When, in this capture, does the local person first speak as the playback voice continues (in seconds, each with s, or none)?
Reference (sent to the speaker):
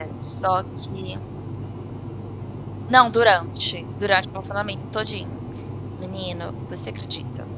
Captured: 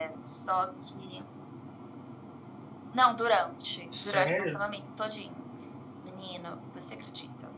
3.9 s